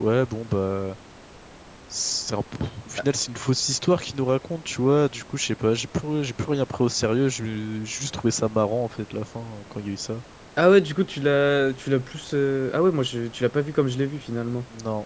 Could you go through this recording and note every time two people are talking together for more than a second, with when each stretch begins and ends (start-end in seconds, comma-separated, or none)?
none